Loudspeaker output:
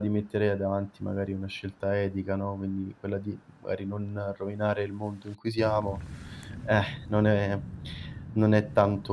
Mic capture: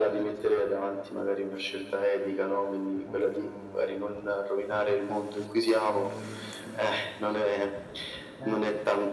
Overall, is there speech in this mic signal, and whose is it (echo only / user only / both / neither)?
both